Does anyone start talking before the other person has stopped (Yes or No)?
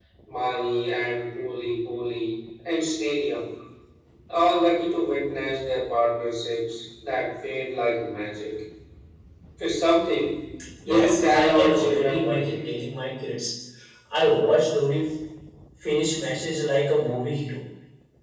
Yes